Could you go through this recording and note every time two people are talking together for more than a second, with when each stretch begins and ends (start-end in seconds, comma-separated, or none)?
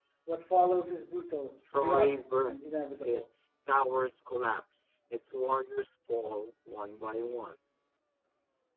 1.8-3.2